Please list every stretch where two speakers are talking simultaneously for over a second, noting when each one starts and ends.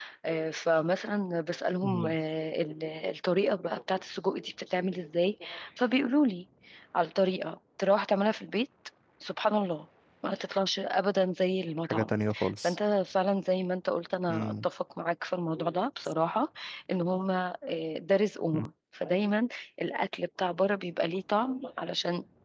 none

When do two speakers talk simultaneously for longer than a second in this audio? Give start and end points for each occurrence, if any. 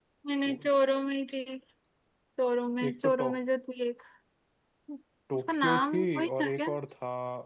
5.3-6.7

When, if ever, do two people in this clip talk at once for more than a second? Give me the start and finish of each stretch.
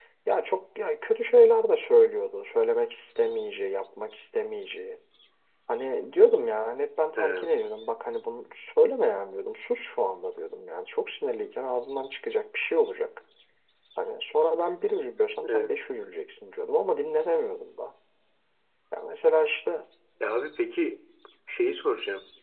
none

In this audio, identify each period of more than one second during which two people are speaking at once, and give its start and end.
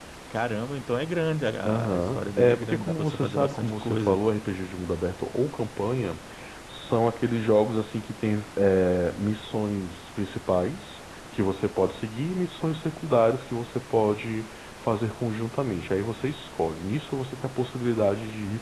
1.6-4.2

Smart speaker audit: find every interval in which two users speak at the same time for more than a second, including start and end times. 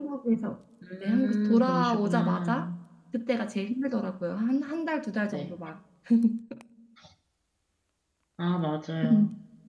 1.0-2.7

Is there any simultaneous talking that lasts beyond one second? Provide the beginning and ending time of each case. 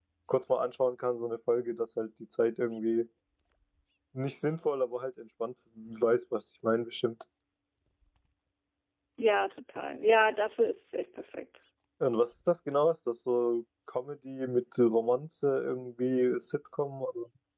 none

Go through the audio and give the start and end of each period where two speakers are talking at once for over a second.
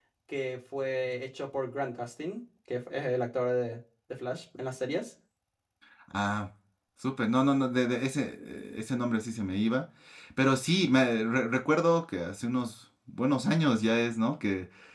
none

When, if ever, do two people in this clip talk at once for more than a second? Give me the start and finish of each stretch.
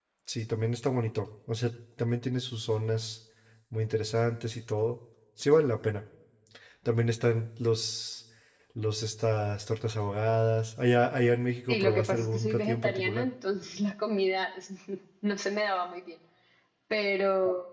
11.7-13.3

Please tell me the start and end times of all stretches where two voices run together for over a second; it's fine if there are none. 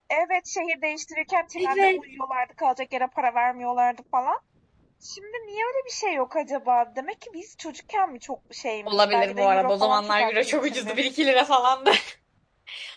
8.9-11.0

